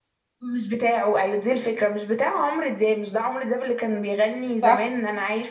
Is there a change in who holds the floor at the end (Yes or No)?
No